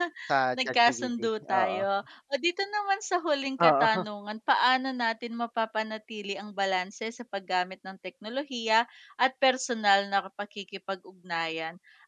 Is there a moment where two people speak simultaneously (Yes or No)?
Yes